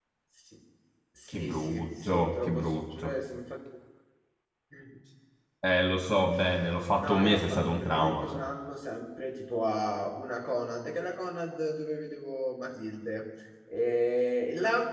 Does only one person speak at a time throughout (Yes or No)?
No